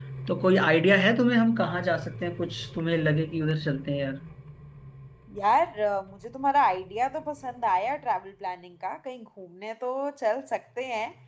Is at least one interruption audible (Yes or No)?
No